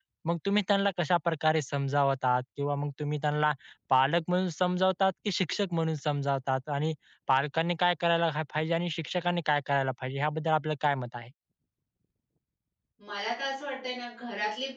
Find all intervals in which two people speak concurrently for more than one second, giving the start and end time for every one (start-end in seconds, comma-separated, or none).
none